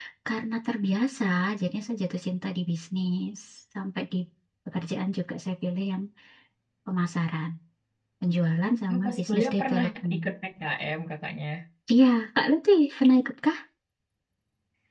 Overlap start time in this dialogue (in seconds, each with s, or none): 8.9 s